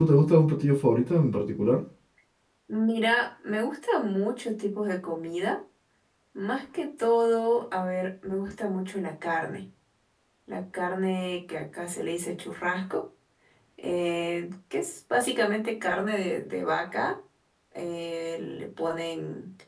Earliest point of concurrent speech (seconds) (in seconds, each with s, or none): none